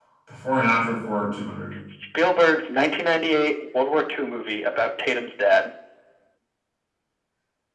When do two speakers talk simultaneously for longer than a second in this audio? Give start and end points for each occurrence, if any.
none

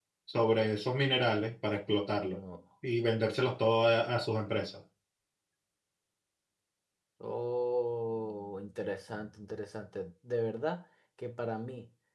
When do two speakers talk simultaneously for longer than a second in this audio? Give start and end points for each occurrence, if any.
none

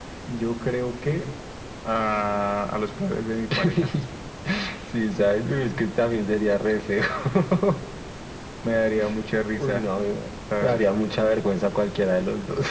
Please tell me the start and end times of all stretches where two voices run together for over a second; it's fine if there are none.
none

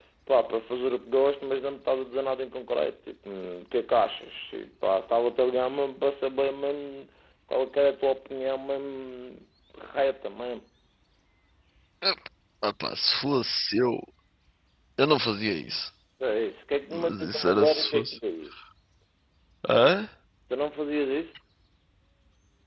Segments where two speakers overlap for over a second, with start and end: 16.9-18.2

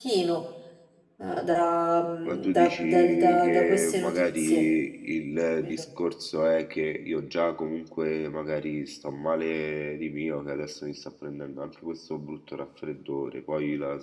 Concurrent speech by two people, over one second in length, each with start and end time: 2.2-4.6

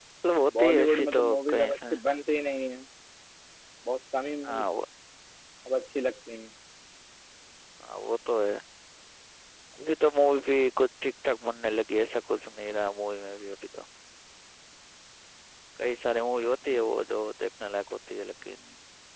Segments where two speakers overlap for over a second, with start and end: 0.6-1.9

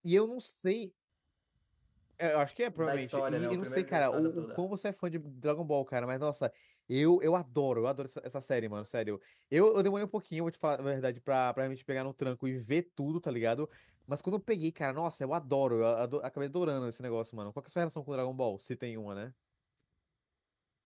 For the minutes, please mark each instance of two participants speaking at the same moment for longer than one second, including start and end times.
2.7-4.6

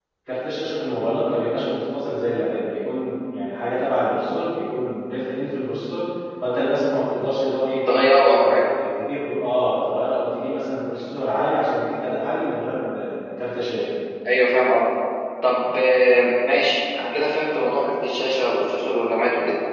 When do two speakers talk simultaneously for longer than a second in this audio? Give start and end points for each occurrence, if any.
none

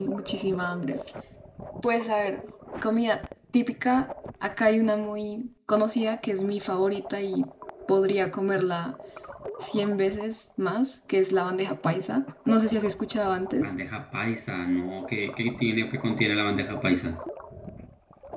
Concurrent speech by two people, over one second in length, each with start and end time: none

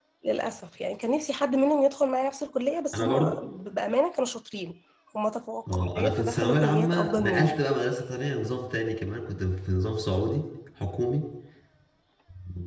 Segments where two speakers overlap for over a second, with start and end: 5.7-7.6

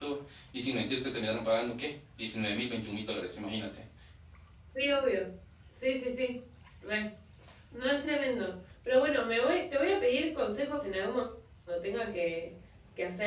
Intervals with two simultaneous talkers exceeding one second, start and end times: none

